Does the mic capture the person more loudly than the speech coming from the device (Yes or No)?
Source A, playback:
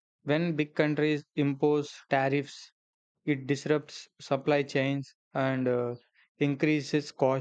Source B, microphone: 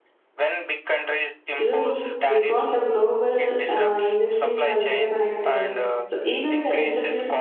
Yes